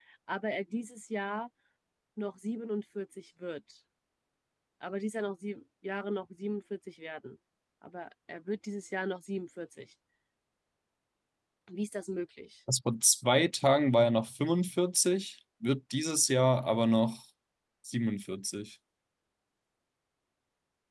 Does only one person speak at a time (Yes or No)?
Yes